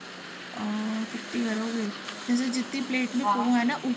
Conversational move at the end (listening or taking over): listening